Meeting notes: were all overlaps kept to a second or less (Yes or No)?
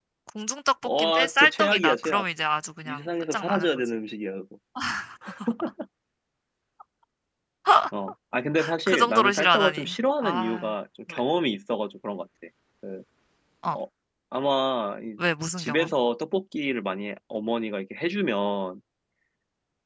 No